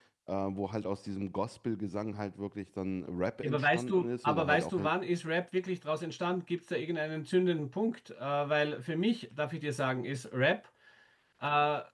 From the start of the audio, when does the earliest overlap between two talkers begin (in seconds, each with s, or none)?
3.4 s